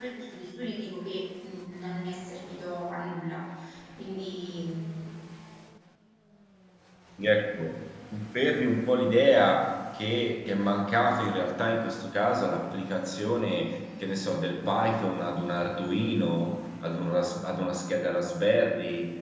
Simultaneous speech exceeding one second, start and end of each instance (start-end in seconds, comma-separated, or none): none